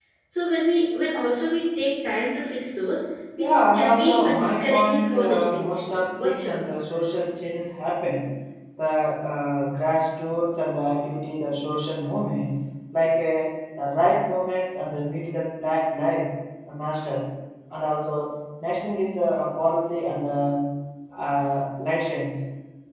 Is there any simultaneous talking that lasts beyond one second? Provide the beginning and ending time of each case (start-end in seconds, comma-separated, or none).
3.4-6.7